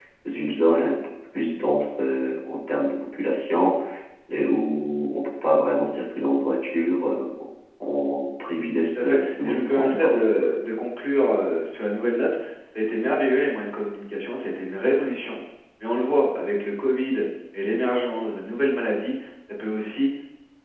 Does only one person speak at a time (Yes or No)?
No